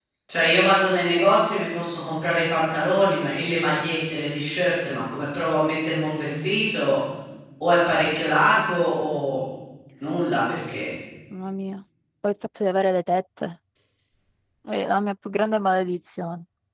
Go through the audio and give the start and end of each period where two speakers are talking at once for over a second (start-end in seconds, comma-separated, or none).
none